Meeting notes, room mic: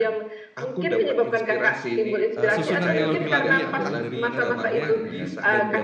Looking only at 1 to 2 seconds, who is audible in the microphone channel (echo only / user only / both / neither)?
echo only